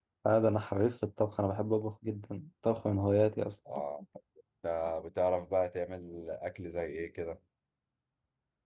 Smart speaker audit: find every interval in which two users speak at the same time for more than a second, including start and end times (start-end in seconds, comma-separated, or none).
none